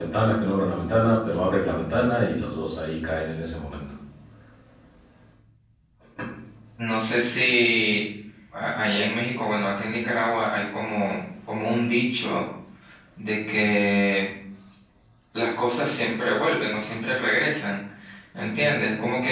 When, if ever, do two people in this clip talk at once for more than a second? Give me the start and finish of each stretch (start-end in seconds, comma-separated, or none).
none